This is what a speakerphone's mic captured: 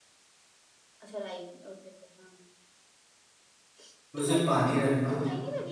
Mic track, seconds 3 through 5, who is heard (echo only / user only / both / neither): both